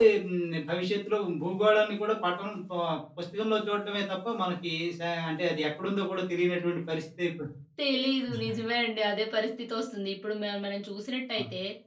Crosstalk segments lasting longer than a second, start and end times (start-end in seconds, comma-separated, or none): none